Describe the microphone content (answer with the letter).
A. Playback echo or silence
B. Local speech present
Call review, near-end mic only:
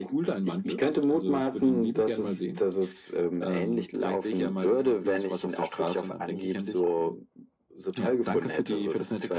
A